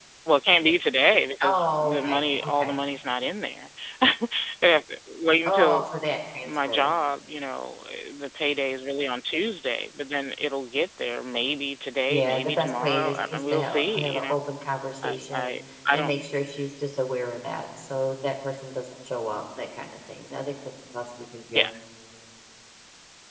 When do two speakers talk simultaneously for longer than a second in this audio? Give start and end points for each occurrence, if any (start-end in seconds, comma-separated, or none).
1.4-2.7, 12.1-14.4